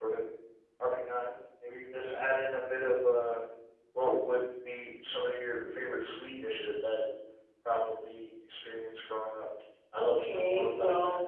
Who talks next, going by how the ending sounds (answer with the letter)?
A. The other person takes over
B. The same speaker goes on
A